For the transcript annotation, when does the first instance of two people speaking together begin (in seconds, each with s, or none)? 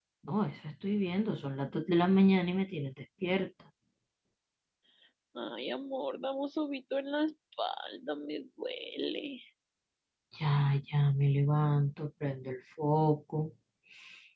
none